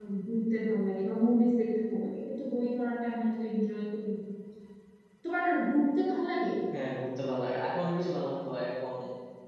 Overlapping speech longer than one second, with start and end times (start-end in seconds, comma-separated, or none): none